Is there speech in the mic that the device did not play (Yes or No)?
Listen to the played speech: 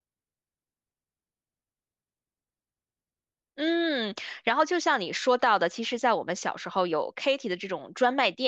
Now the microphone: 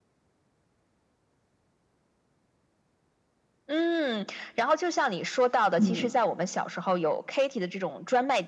Yes